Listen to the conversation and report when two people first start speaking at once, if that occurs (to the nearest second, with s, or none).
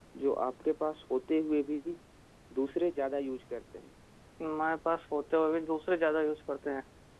none